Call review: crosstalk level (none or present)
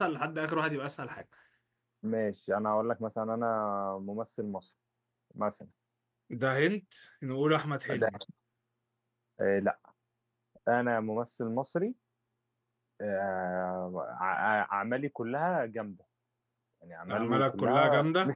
present